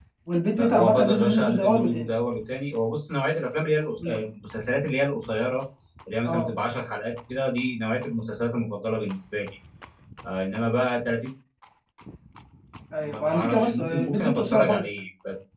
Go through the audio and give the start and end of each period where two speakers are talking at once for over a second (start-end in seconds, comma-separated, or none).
0.6-2.1, 13.0-14.8